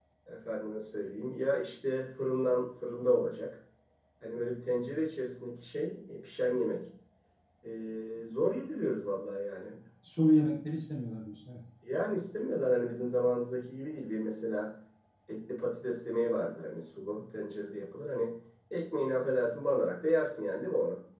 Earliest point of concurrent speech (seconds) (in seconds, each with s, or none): none